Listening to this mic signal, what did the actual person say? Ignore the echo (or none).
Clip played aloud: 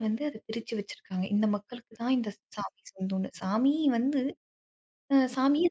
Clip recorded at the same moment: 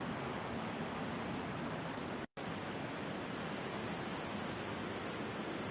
none